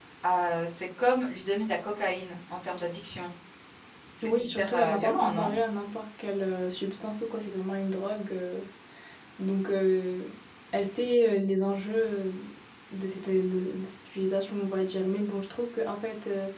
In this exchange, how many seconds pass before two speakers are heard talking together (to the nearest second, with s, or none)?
4 s